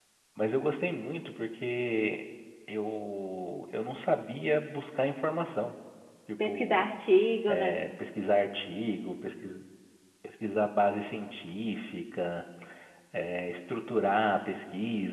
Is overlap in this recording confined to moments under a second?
Yes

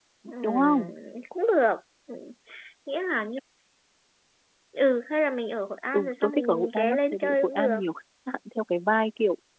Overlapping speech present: Yes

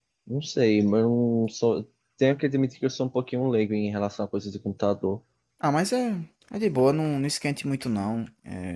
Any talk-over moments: No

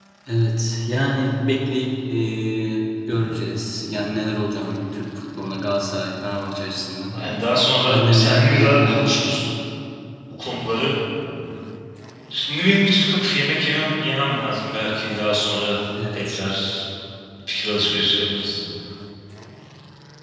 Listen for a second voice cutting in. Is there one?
Yes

